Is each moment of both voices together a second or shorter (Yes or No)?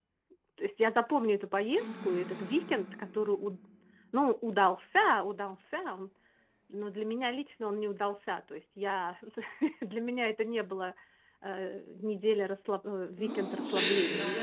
No